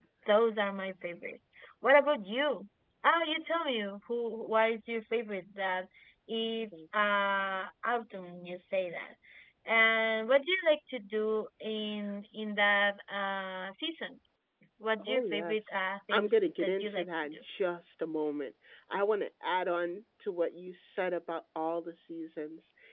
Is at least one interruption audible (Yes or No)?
Yes